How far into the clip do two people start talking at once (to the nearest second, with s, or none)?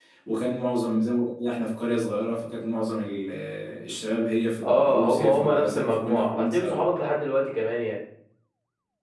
5 s